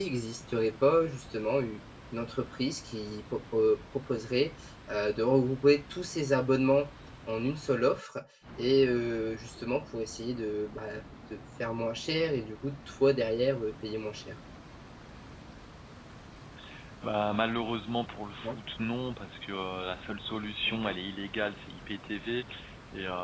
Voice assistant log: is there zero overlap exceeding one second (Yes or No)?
Yes